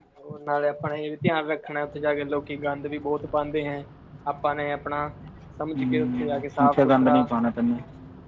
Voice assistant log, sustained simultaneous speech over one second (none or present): present